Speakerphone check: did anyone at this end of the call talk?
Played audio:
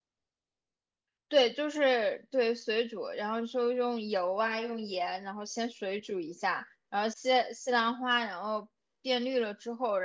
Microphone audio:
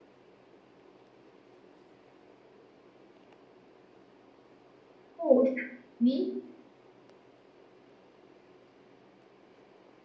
Yes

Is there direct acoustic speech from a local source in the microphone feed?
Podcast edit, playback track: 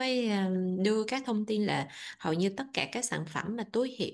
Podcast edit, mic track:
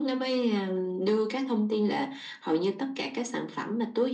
No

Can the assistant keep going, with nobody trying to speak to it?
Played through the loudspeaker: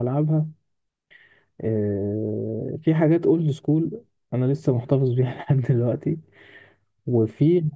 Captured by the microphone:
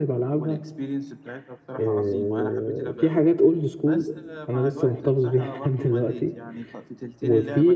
No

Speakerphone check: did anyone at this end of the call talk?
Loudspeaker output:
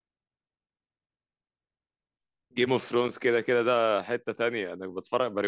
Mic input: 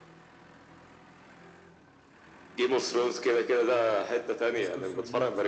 Yes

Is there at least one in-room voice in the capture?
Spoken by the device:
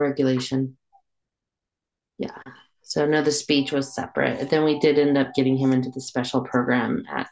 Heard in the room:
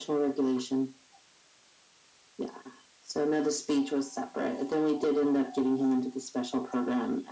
No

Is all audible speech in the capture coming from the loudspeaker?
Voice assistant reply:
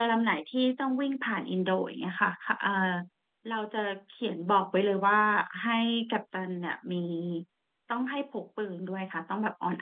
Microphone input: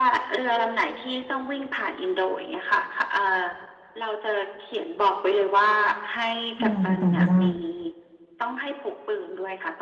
No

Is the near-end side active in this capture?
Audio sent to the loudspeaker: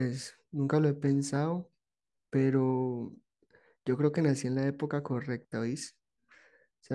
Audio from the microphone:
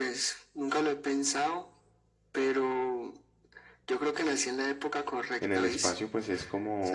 Yes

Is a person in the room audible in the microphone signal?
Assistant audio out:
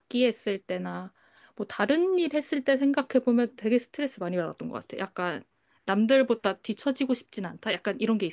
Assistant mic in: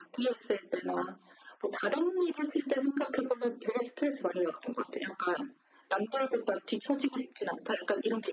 No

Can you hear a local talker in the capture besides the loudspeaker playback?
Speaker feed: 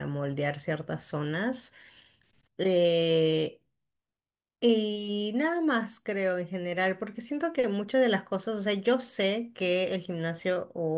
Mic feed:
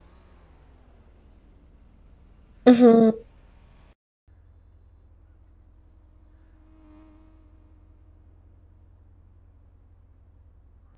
Yes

